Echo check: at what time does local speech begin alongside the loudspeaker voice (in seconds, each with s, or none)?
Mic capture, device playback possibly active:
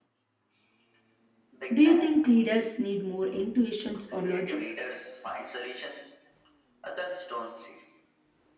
1.7 s